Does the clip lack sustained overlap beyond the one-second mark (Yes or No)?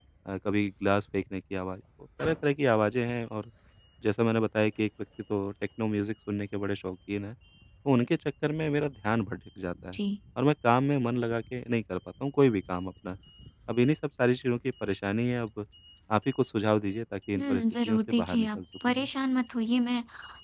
No